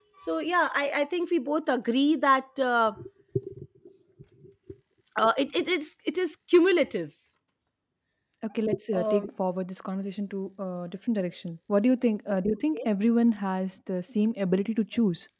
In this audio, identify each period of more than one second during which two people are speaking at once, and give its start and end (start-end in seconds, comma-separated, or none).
none